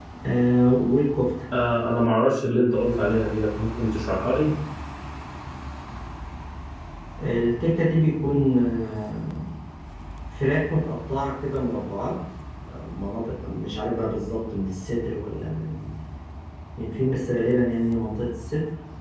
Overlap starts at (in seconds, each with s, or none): none